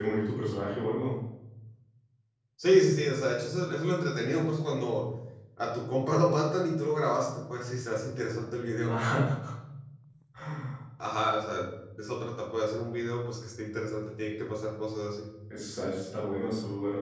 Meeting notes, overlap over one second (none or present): none